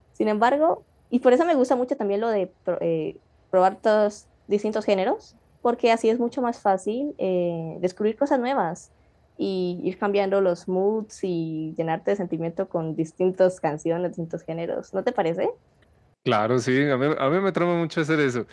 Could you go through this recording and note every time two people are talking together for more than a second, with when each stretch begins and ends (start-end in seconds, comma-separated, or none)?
none